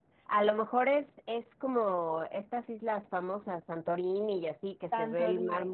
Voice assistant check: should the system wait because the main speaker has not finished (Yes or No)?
No